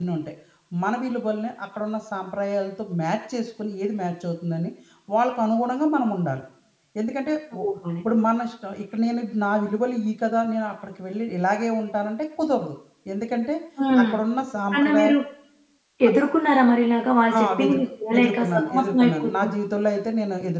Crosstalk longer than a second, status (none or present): present